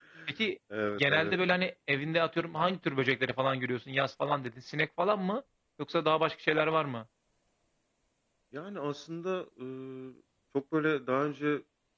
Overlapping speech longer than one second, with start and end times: none

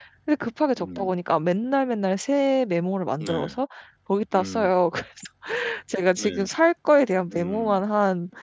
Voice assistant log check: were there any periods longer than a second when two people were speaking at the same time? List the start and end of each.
none

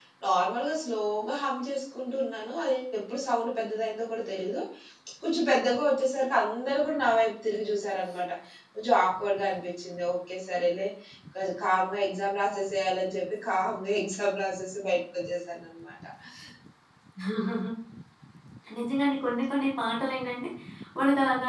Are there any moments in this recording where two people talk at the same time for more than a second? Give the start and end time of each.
none

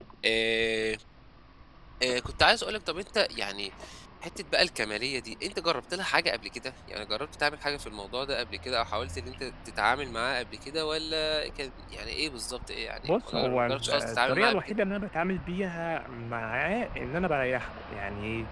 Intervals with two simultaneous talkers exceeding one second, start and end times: 13.0-14.8

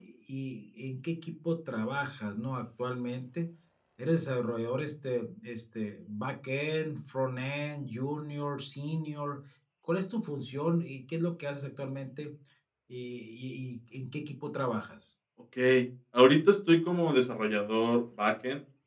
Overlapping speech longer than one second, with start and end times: none

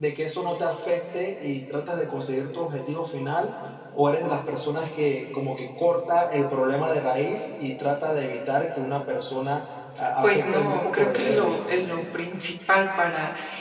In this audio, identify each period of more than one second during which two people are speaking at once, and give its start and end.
10.2-11.6

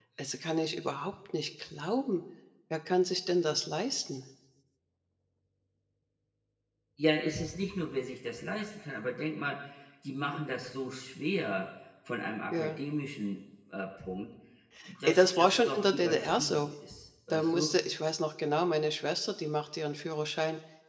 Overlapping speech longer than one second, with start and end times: 15.0-16.6

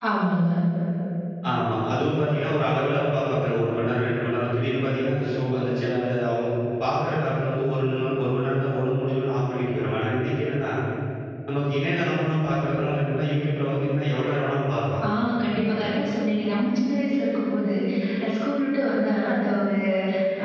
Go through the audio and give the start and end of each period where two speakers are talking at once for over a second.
none

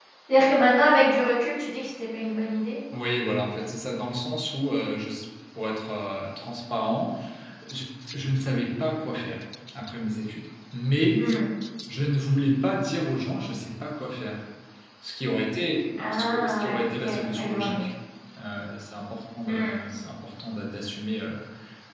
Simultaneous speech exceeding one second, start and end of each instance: 16.0-17.9

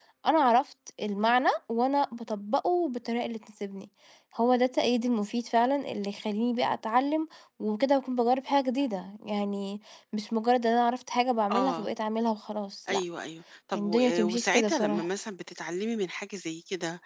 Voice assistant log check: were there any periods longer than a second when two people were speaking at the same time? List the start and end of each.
13.7-15.1

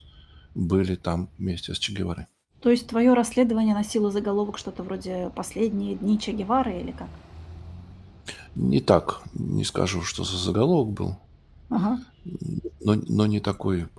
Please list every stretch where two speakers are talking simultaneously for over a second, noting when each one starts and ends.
none

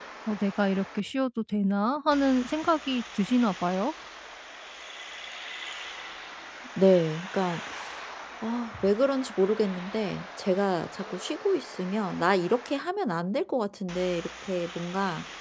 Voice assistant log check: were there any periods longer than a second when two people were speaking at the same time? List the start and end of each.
none

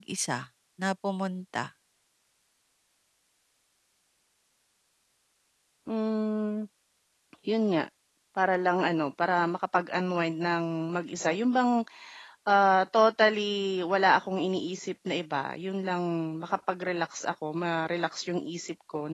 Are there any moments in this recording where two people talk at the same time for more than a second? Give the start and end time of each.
none

